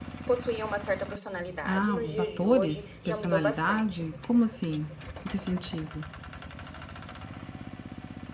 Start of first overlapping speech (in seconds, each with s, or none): 1.6 s